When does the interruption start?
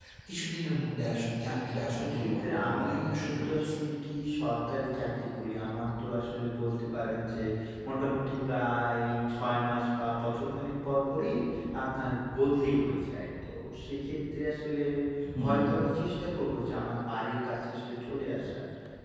1.7 s

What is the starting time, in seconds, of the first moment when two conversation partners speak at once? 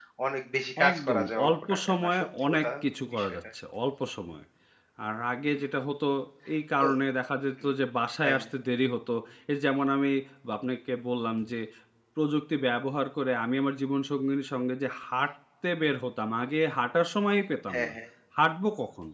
0.9 s

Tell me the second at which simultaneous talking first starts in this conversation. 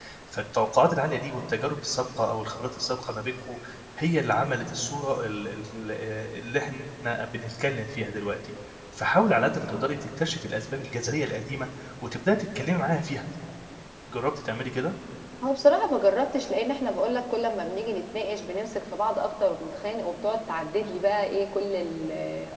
none

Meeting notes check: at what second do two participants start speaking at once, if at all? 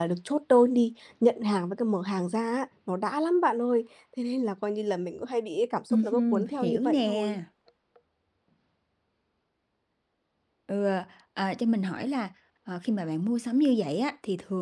5.9 s

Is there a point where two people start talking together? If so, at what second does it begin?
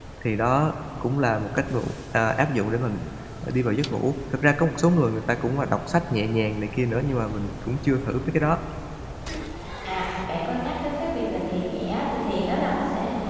none

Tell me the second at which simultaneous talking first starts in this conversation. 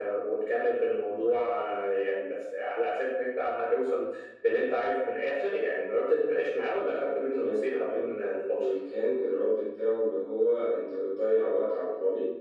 6.8 s

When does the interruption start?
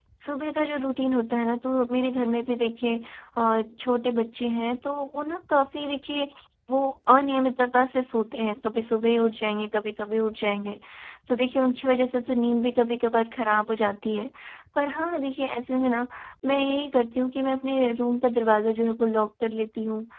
none

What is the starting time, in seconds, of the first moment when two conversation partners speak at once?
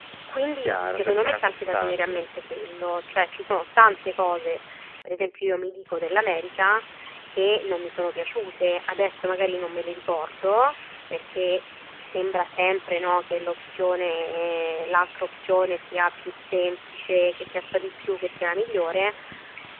0.6 s

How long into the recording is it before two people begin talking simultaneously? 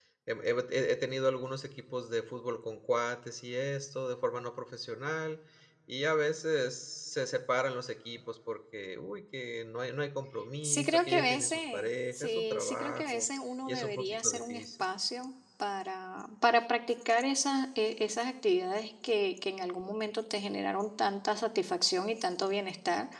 10.6 s

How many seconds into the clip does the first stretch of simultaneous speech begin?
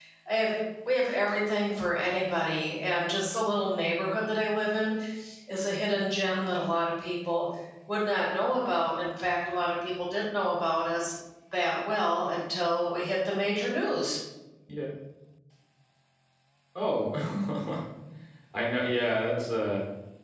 none

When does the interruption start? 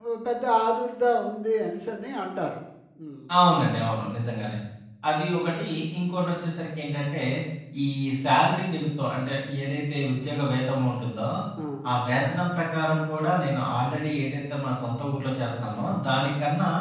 none

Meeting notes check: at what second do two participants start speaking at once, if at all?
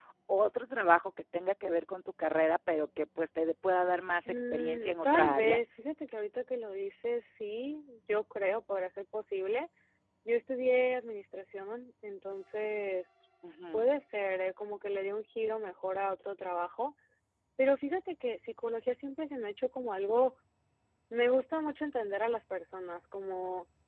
4.3 s

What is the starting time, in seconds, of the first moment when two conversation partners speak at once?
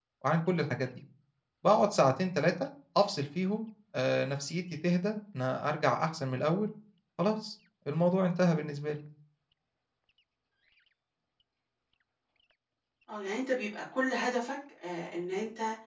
none

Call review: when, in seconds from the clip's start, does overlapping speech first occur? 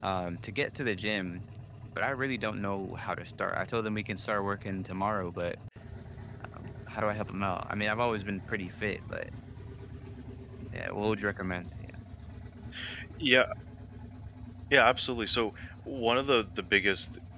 none

